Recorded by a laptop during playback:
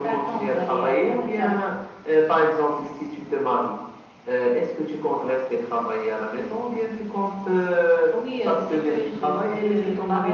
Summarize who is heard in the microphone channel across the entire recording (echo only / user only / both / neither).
echo only